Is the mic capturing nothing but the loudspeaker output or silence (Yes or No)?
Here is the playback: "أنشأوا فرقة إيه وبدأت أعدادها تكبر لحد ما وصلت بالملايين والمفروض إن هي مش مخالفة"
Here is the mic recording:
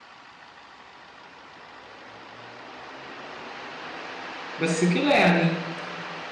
No